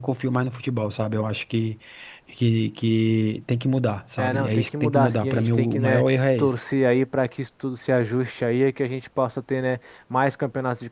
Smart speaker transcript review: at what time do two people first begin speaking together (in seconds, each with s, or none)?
4.2 s